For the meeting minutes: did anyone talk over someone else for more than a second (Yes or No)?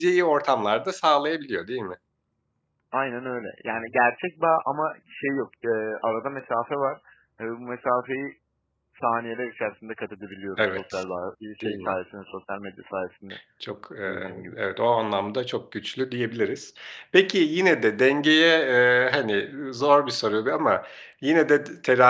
No